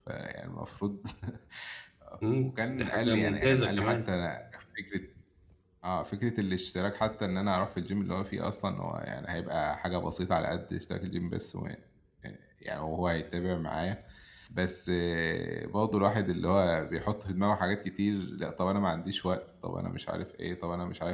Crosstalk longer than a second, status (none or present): present